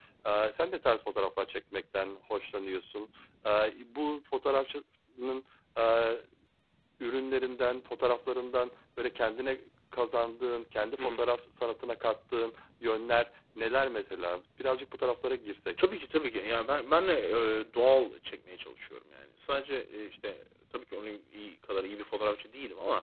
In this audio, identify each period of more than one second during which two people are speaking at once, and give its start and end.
none

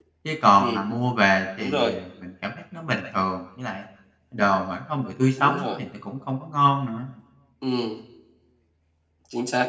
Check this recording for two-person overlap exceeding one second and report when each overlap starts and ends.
none

